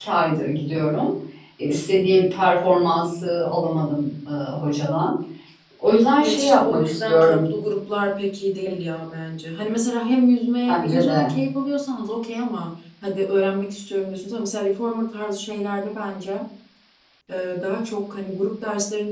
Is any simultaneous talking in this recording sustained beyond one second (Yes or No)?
Yes